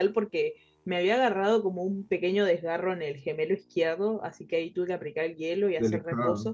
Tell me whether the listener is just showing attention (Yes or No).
Yes